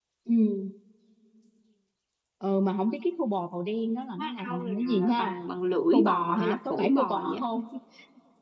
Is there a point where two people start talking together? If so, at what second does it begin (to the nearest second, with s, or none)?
4 s